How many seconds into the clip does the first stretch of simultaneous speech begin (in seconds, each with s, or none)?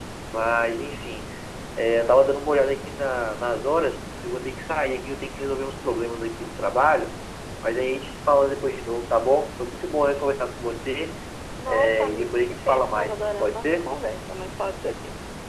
11.7 s